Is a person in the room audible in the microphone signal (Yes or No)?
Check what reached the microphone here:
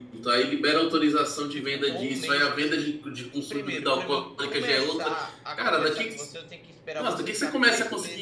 Yes